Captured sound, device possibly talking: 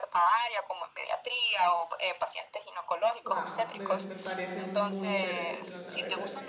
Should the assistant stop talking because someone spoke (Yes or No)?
Yes